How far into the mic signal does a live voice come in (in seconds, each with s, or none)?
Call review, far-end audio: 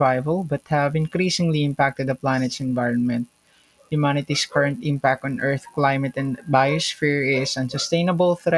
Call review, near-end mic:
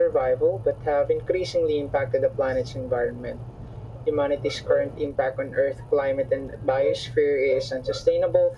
none